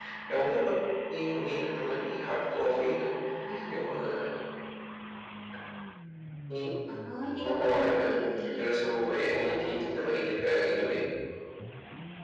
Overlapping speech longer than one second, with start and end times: 7.4-9.8

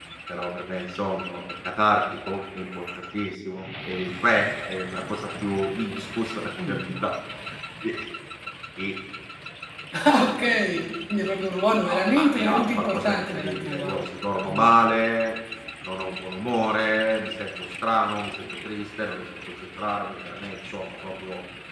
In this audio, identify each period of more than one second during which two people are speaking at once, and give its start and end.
11.8-14.0

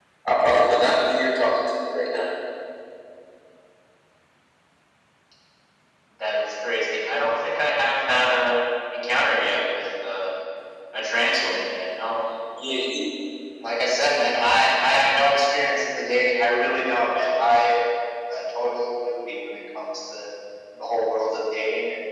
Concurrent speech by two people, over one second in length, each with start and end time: none

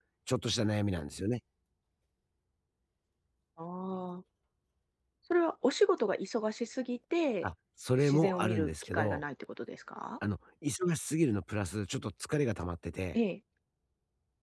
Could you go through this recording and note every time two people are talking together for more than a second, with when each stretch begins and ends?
8.0-9.2

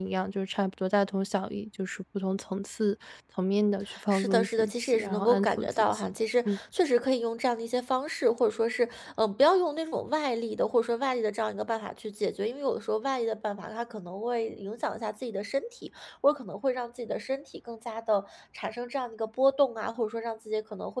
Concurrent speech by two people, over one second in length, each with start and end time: 4.1-6.0

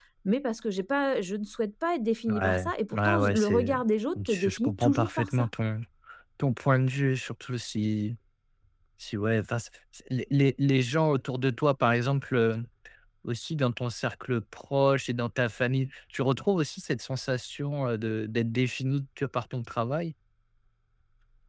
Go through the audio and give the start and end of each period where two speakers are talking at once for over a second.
2.3-3.7, 4.3-5.5

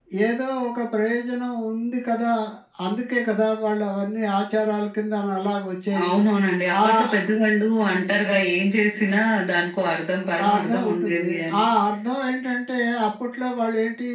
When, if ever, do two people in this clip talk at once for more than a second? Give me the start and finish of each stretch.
10.4-11.7

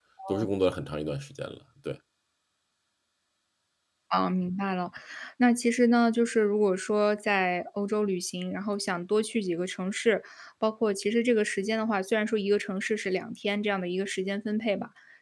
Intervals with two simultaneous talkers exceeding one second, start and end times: none

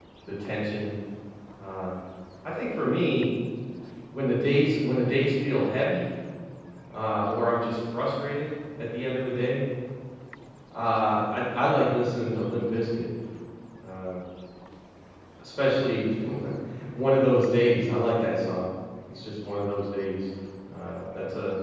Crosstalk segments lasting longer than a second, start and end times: none

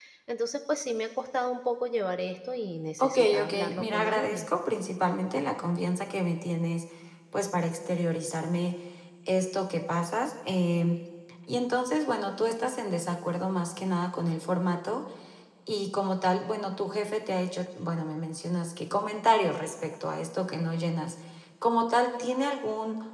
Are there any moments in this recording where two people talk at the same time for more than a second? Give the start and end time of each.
3.0-4.5

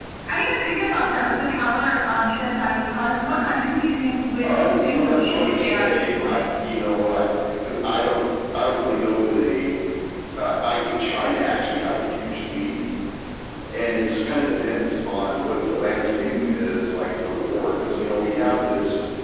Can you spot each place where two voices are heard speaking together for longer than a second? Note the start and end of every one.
4.4-6.4

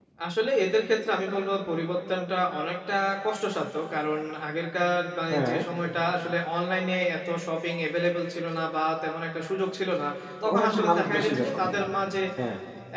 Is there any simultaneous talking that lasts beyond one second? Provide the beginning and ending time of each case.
10.4-11.8

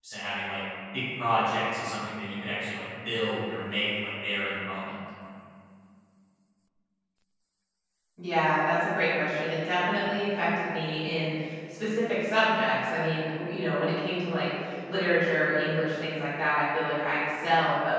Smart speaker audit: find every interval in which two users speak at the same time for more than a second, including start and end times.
none

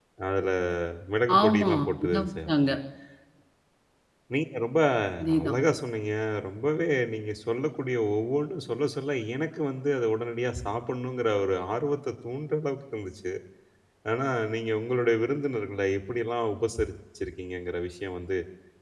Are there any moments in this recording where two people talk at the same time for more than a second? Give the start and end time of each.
1.4-2.7

